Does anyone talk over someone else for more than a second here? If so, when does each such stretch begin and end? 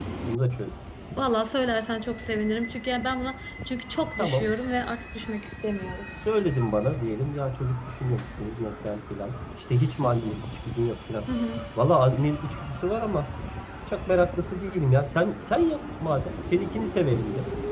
none

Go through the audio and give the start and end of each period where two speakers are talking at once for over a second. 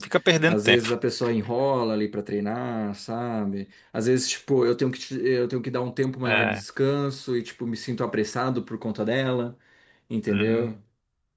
none

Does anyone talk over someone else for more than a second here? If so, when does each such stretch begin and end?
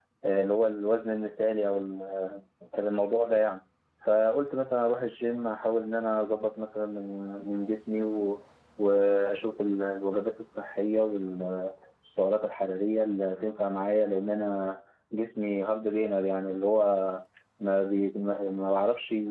none

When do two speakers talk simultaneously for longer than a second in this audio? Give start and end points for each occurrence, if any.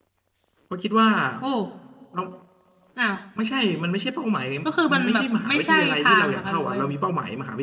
4.9-6.9

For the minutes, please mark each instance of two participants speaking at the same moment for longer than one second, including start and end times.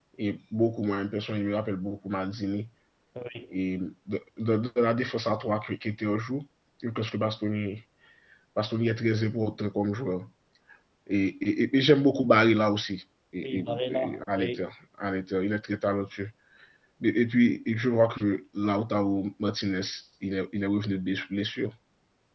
13.4-14.7

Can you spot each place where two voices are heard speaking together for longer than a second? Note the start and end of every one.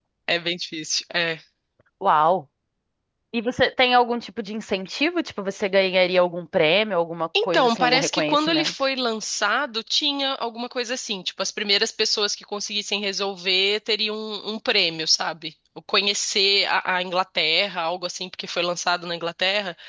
7.4-8.7

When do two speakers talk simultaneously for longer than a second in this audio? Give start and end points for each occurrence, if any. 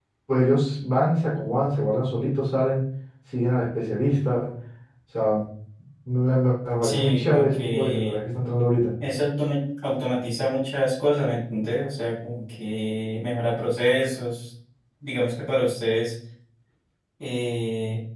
6.8-8.2

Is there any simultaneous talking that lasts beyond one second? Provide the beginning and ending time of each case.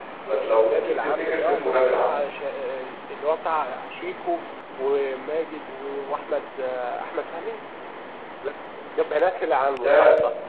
0.6-2.2

